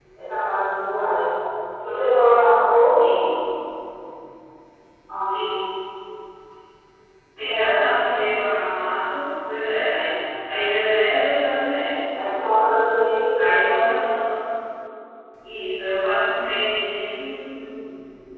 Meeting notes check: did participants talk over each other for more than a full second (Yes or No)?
No